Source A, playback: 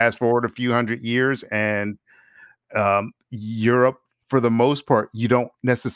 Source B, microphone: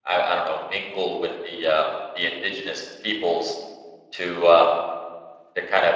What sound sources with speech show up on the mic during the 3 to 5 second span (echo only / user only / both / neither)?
user only